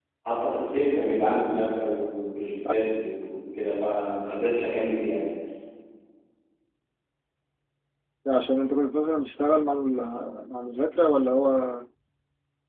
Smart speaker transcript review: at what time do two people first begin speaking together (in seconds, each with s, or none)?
none